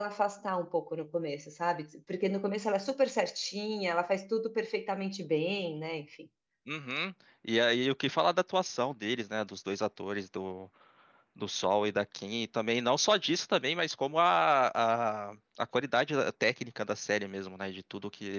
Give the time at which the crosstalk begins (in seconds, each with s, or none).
none